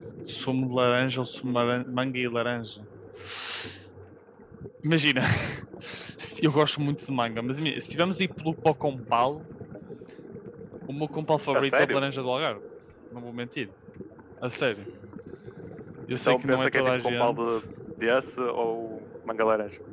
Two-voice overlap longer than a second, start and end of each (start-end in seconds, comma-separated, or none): 16.2-17.5